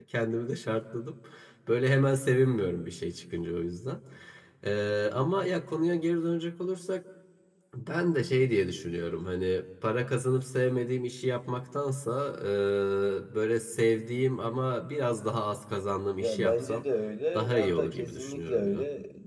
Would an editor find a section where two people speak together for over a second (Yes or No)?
Yes